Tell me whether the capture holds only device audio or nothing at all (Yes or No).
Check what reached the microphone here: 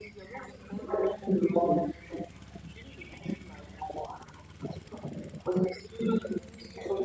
Yes